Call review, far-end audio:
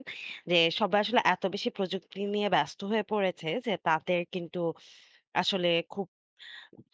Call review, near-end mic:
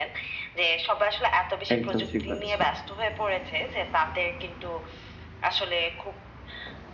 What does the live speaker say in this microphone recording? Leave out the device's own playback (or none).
একদম ঠিক বলেছেন।